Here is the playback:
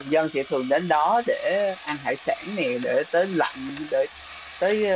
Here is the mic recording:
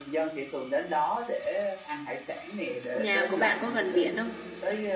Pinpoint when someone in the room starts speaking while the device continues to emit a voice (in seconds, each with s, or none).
2.9 s